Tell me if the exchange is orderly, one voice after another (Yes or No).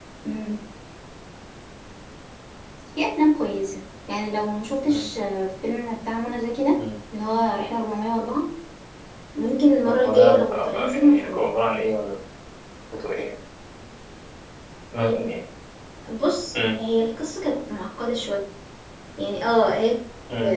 No